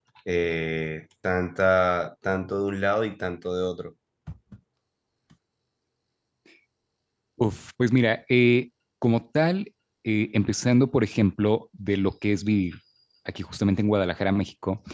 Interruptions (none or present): none